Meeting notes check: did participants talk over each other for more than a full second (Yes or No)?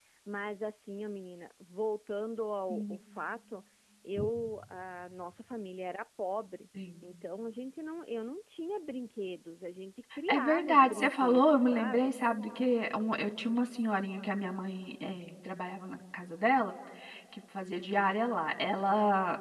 Yes